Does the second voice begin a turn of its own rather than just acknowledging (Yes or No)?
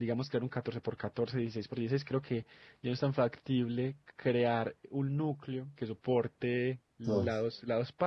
No